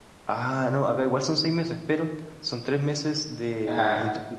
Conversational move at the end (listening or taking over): listening